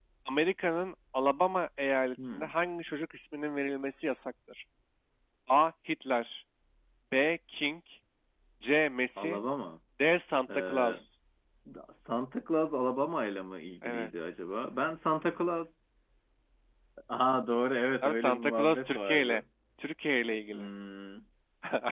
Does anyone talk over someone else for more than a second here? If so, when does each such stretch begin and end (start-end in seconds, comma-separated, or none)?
18.0-19.4